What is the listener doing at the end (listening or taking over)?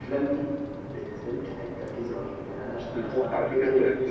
taking over